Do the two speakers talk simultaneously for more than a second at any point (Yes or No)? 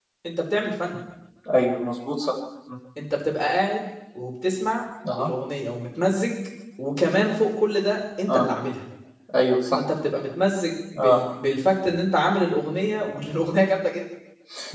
No